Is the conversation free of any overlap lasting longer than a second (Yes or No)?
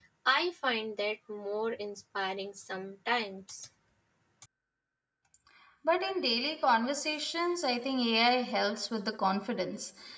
Yes